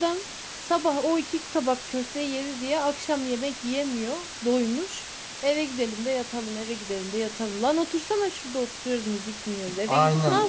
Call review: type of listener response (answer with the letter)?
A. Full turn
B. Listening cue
A